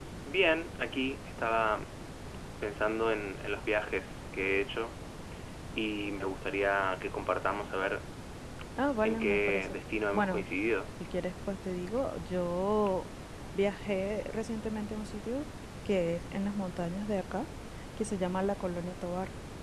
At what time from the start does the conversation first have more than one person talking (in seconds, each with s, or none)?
9.0 s